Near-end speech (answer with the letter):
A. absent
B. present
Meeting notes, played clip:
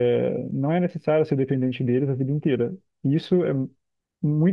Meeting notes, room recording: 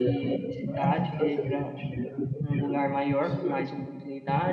B